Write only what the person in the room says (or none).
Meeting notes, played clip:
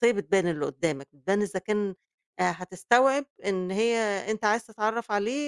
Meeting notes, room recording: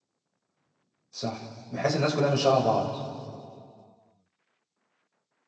صح، بحيث الناس كلّها مش شبه بعض،